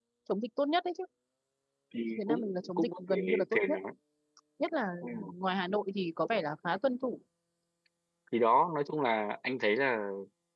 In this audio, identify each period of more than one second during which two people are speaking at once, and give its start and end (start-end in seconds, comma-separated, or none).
2.2-3.8